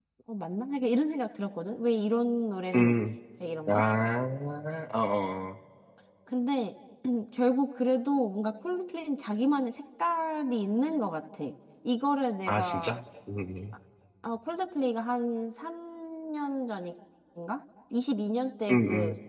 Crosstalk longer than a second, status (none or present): none